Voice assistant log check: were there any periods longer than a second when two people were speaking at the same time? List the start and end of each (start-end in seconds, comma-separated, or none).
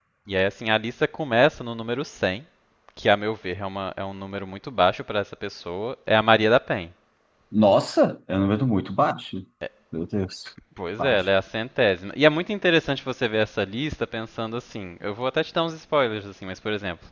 none